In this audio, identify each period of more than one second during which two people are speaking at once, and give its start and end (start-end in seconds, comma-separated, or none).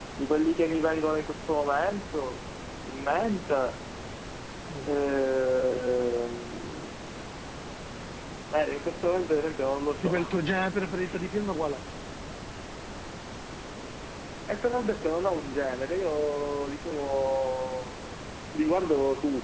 none